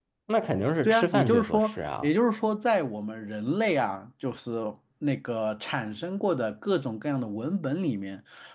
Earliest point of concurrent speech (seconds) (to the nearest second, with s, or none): 1 s